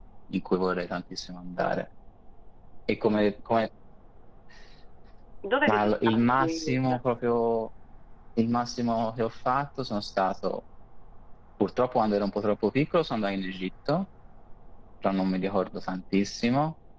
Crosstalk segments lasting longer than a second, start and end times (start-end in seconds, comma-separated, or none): 5.7-7.0